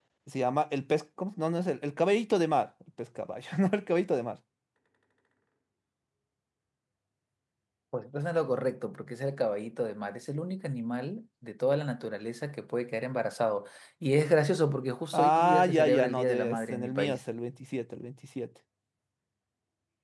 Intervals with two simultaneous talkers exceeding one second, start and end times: 15.1-17.2

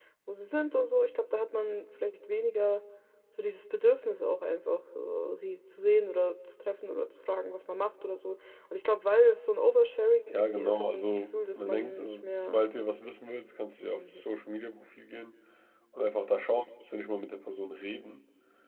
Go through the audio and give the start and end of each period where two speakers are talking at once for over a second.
10.3-12.6

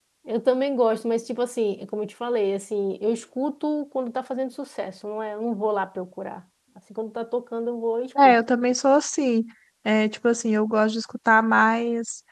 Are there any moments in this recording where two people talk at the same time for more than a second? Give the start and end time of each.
none

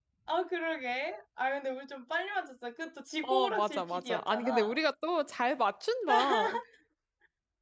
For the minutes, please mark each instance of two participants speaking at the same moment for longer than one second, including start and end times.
3.2-4.8

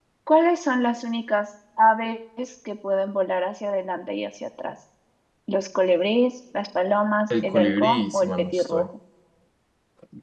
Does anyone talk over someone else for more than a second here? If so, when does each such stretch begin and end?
7.4-8.8

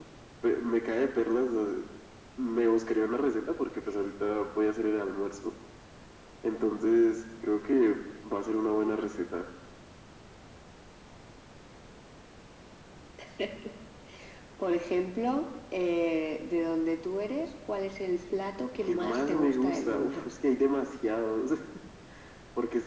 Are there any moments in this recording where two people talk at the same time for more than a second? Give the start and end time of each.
18.8-20.2

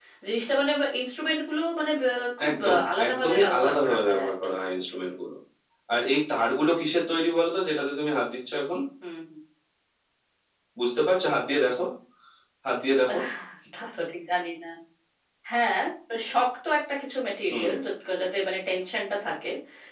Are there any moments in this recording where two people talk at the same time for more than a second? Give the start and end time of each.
2.5-4.5

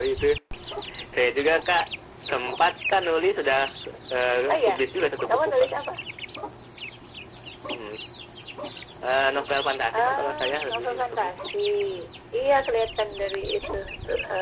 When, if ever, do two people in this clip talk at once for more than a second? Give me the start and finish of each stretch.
10.0-11.3

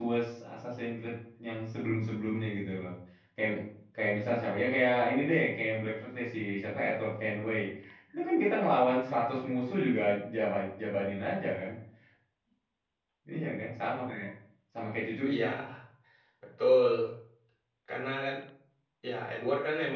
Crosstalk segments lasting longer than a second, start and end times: none

